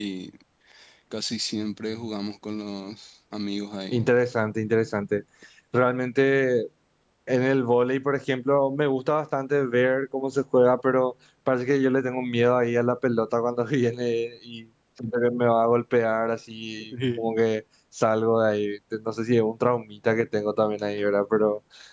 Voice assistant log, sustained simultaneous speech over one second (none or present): none